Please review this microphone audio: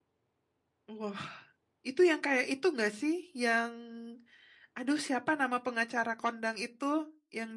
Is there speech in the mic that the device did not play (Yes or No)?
Yes